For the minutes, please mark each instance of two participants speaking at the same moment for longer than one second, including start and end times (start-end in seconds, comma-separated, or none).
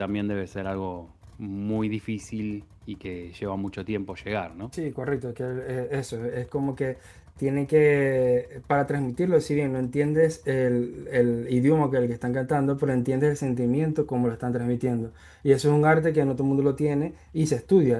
none